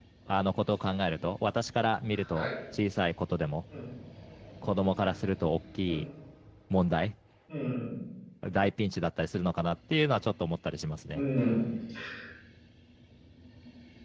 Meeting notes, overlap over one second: none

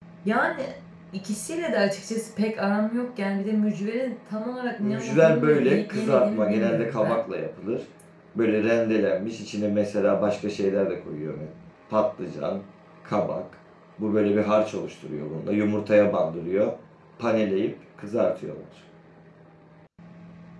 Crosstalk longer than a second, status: present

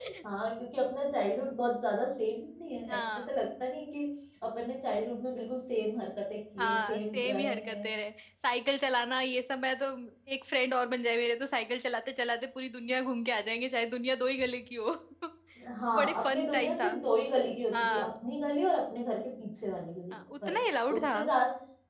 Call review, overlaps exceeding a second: present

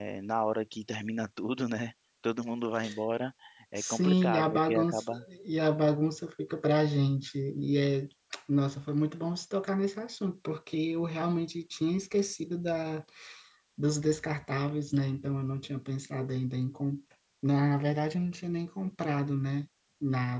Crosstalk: present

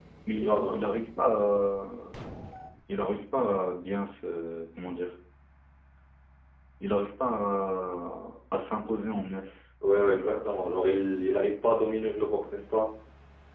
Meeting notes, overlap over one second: none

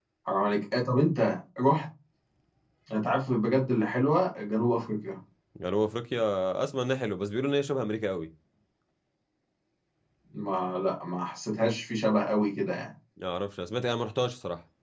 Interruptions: none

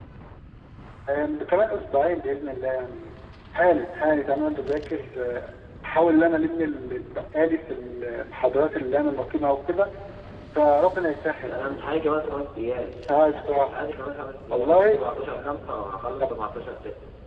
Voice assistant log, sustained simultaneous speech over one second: none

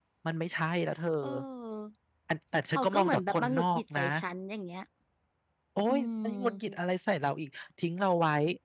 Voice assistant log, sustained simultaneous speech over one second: present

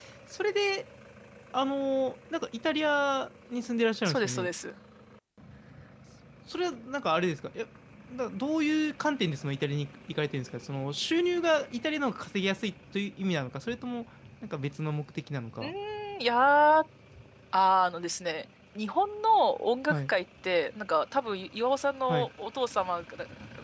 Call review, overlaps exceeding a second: none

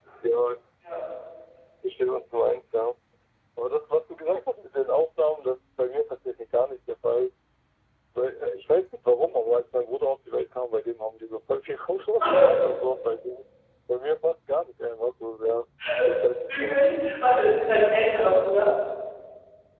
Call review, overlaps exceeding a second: none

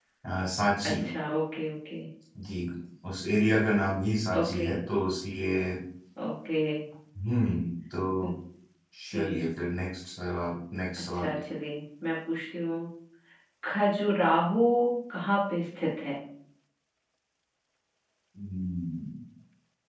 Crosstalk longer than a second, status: none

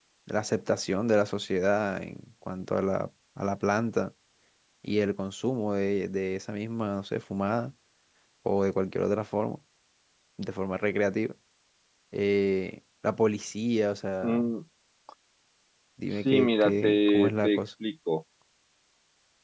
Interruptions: present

